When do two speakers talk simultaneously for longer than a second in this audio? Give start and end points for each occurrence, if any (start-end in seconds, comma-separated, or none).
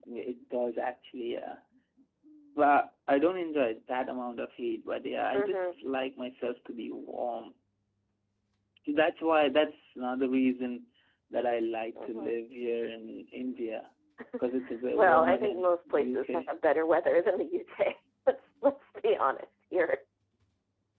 15.0-16.5